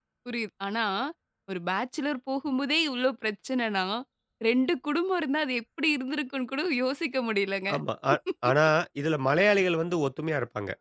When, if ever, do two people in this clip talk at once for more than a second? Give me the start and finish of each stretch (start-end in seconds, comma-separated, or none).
none